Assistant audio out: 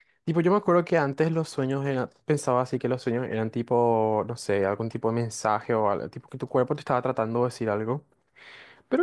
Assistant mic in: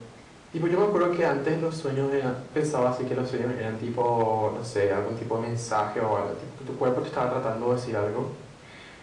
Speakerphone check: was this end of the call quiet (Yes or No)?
Yes